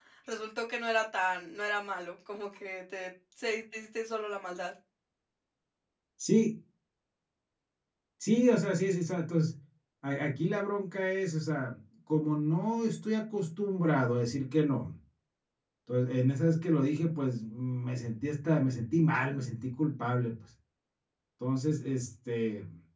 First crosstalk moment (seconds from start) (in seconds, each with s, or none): none